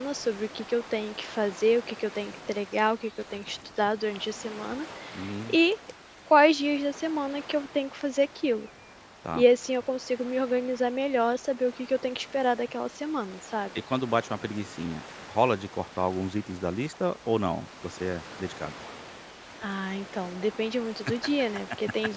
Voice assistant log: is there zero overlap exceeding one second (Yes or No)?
Yes